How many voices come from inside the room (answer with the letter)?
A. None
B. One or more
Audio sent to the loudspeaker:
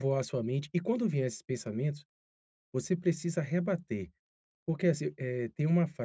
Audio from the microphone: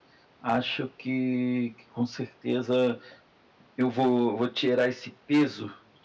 B